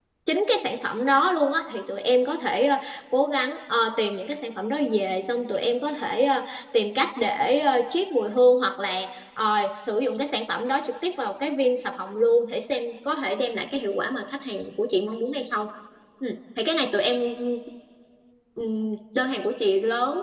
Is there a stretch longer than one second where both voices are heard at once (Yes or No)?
No